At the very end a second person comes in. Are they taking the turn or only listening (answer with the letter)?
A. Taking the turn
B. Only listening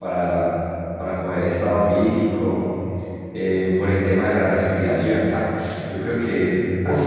B